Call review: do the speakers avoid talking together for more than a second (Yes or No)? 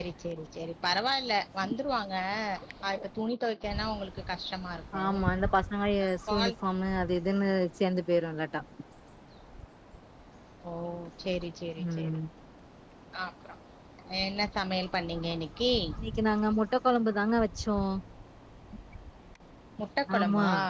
Yes